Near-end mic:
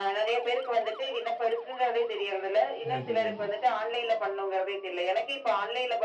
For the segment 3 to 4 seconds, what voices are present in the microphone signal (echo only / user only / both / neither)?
both